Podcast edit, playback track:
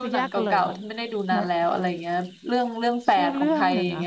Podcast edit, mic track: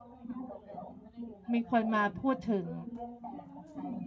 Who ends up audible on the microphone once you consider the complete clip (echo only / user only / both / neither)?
both